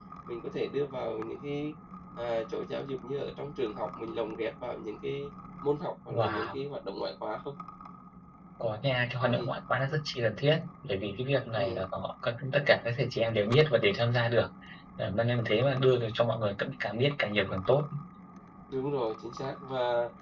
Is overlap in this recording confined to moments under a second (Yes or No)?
Yes